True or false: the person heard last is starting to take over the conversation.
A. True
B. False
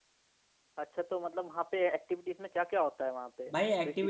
A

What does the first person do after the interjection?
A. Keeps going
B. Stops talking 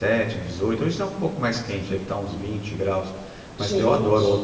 A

